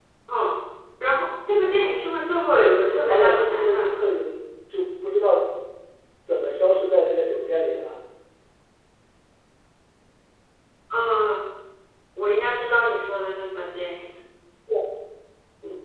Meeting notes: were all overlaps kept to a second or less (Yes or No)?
No